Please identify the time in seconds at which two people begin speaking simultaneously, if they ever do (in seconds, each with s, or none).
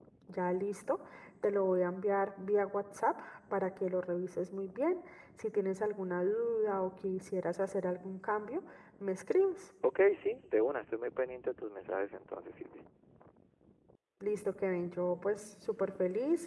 none